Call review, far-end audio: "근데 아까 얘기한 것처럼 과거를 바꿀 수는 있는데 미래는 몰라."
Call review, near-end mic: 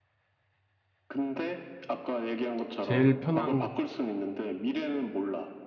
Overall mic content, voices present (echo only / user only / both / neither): both